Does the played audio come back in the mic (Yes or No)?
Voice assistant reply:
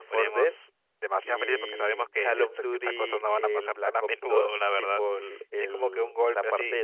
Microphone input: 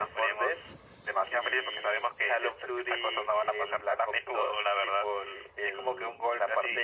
Yes